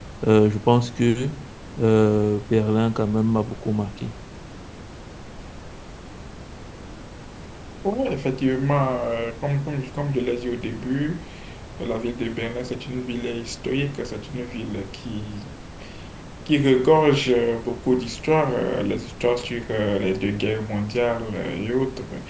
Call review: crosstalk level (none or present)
none